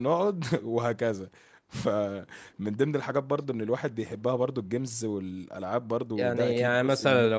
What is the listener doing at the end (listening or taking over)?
taking over